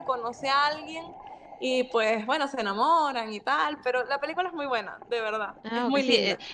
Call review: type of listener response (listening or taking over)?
taking over